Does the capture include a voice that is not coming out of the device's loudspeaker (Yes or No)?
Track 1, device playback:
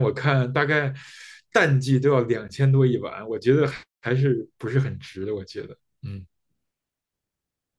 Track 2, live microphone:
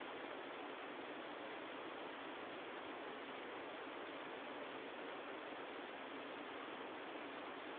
No